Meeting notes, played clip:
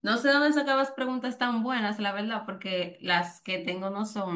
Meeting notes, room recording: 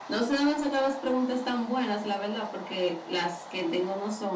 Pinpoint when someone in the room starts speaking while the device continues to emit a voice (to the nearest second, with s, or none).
none